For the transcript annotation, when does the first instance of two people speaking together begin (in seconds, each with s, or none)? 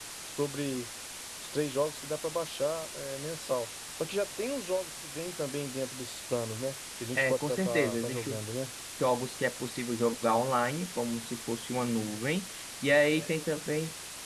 7.2 s